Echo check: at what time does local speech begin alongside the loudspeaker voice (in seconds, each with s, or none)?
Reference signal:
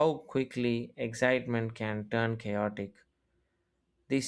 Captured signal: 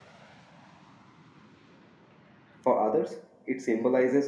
2.6 s